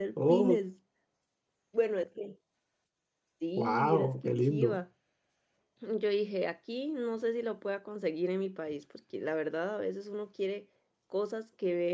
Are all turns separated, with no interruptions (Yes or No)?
No